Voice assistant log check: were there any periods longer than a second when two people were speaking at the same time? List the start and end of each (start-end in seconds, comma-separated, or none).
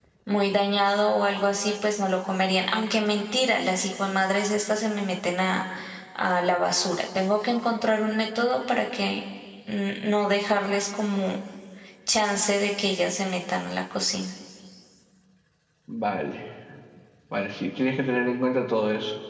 none